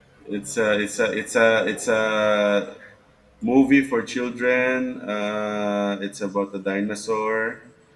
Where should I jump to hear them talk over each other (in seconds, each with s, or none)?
none